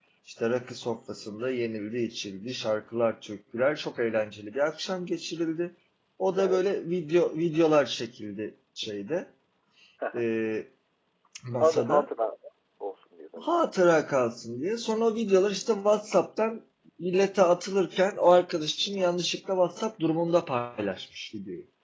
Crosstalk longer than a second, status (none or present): none